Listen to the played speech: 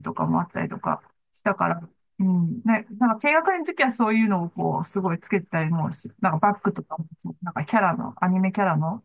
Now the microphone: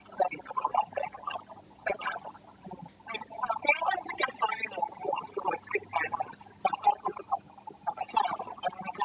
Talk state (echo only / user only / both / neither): echo only